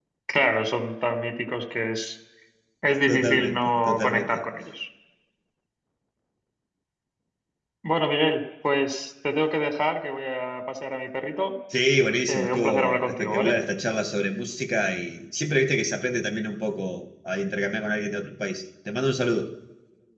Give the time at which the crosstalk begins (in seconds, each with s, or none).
3.1 s